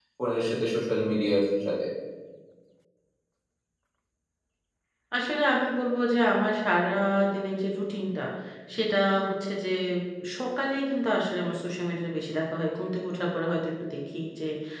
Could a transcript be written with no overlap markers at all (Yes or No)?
Yes